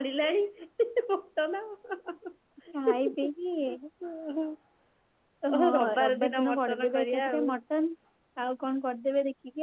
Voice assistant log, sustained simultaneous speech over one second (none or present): present